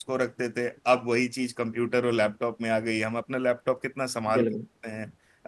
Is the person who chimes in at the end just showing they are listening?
Yes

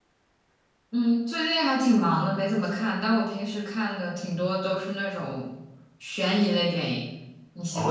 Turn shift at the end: Yes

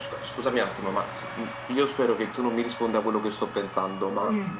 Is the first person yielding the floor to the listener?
No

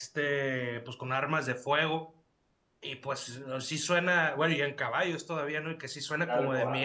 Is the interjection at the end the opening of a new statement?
No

